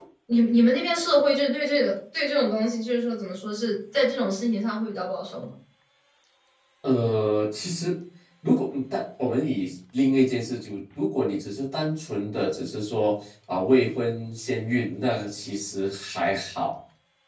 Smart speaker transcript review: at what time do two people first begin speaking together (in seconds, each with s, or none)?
none